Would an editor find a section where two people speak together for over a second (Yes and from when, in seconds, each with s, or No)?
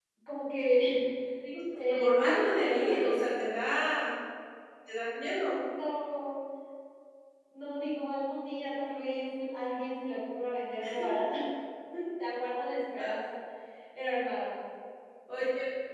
Yes, from 1.9 s